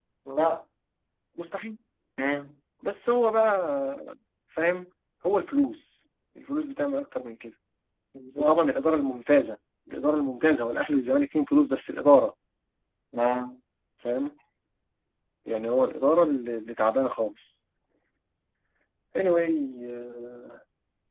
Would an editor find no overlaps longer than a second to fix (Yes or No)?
Yes